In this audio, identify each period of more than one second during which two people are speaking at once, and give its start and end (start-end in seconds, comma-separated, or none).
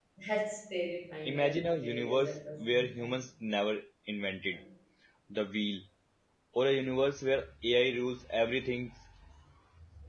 1.2-3.2